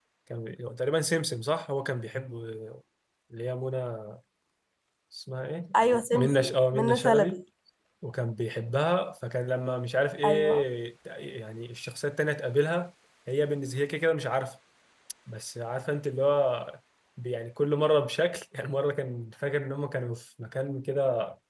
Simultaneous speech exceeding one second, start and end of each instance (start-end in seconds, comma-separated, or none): 6.1-7.4